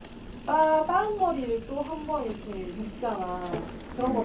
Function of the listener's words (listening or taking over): listening